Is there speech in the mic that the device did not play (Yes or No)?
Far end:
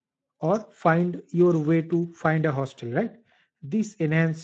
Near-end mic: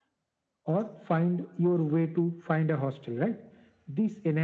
No